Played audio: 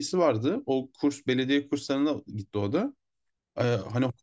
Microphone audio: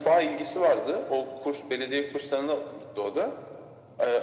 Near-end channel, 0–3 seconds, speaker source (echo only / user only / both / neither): echo only